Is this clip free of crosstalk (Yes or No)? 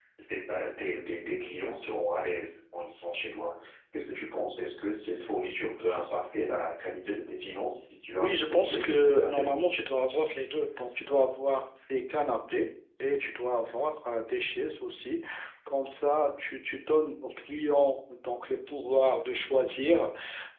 No